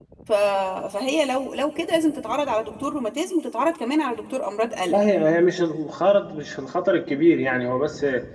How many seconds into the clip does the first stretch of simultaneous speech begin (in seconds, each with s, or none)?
none